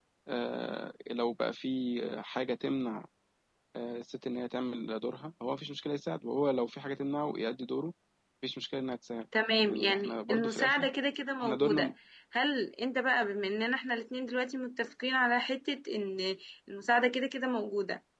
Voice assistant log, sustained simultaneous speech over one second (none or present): present